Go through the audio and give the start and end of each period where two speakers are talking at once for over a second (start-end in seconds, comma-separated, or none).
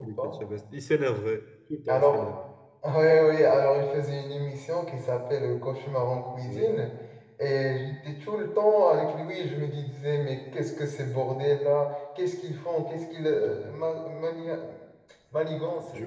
none